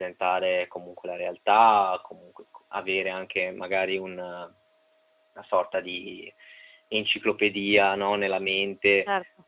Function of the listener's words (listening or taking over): listening